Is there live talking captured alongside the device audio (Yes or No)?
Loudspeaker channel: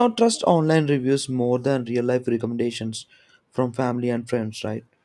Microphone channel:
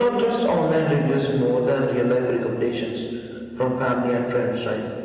No